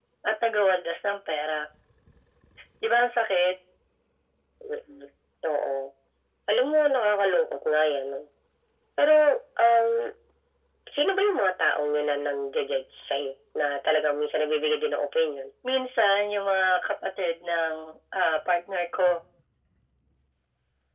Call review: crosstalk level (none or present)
none